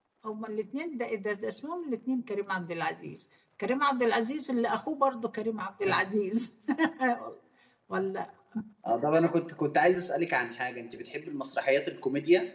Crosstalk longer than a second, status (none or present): none